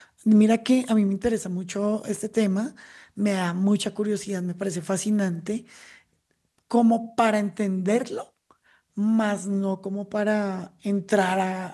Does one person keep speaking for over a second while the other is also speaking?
No

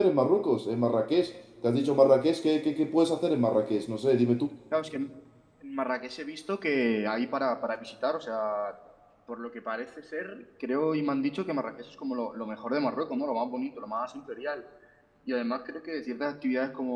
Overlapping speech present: No

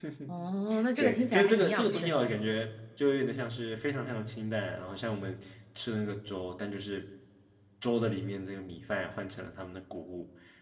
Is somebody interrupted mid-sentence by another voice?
Yes, from 1.0 s

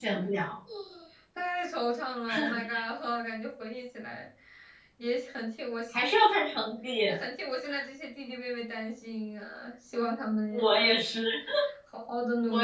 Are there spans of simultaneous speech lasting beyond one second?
No

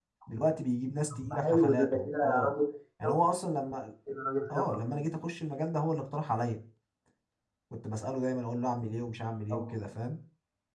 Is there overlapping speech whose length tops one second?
Yes, from 1.2 s

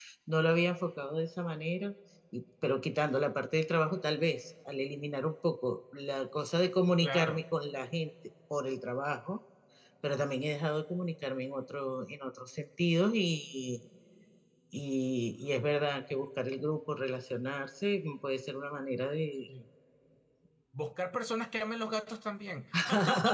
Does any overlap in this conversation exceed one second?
No

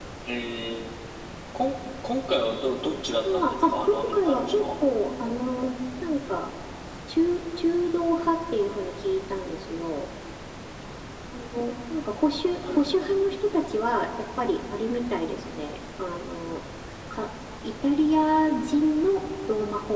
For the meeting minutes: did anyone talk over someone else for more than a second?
Yes, from 3.2 s

